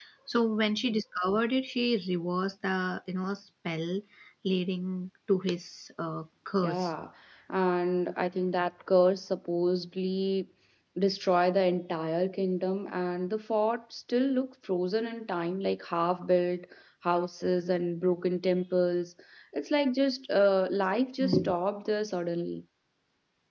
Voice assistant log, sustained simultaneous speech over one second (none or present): none